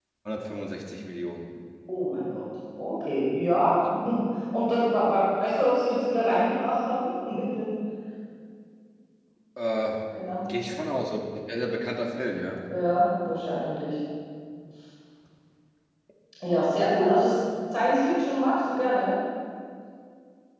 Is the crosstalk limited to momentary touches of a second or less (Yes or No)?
Yes